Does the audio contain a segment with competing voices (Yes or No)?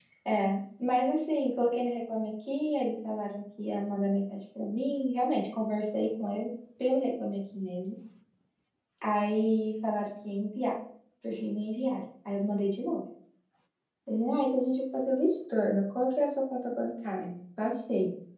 No